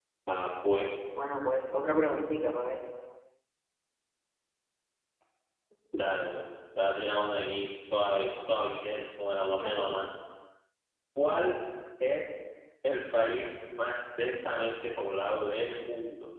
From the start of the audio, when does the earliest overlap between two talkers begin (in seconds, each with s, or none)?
none